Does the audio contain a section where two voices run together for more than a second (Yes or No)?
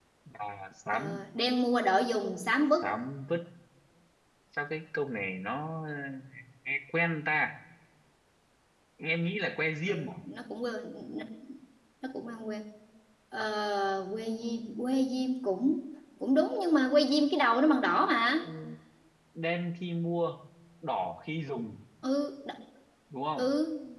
No